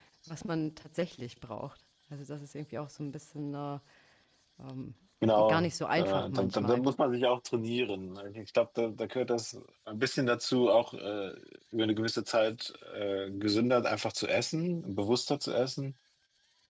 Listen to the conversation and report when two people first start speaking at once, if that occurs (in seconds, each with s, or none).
5.5 s